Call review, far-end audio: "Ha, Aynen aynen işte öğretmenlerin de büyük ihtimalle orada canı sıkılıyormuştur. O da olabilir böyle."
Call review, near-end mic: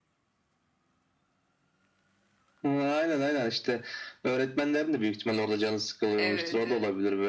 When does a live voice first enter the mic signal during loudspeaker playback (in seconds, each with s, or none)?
6.2 s